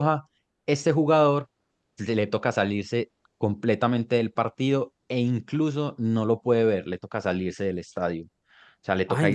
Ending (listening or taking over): taking over